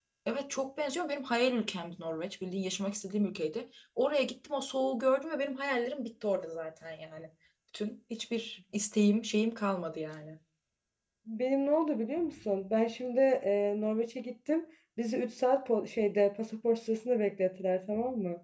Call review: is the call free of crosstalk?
Yes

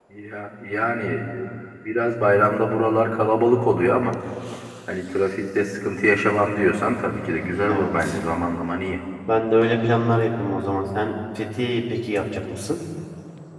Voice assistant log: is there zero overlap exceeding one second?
Yes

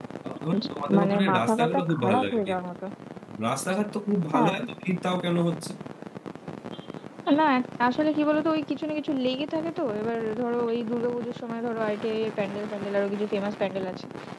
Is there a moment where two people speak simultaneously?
Yes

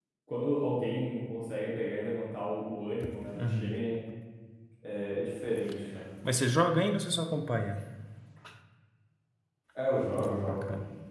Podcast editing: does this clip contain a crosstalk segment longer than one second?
No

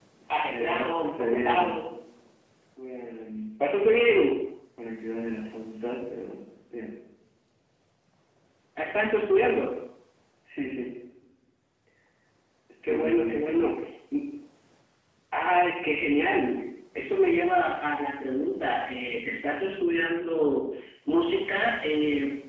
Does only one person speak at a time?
No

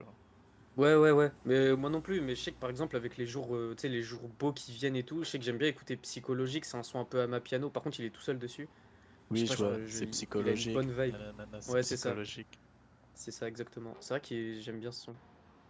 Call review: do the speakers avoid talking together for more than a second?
No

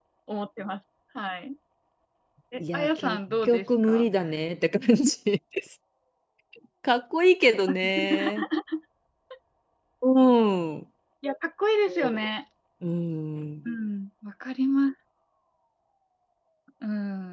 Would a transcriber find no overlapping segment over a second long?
No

